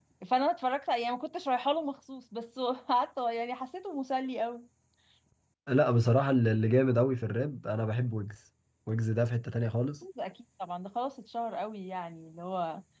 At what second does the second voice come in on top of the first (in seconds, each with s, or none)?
none